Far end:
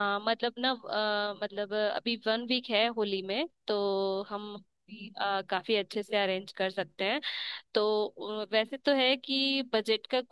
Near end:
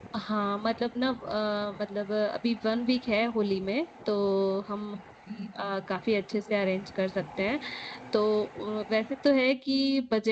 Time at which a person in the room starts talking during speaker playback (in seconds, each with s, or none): none